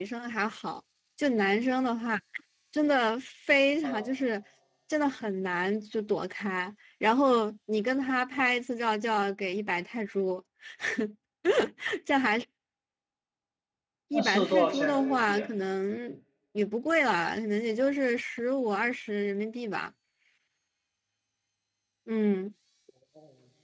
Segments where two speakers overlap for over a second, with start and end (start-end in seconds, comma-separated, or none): 14.1-15.5